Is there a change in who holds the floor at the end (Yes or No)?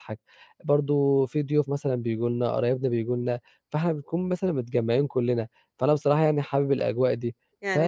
Yes